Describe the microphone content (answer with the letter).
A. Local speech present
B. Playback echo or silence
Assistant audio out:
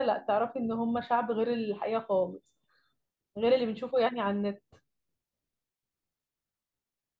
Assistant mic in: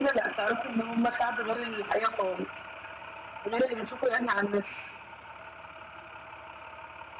B